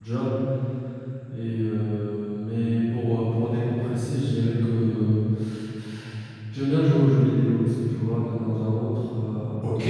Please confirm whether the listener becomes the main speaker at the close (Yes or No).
Yes